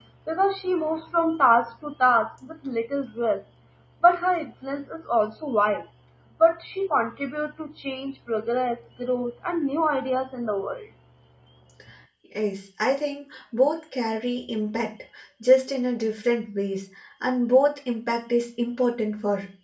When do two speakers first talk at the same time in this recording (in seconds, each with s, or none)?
none